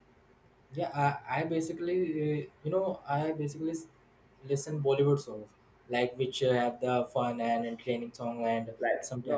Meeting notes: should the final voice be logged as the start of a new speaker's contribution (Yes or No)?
Yes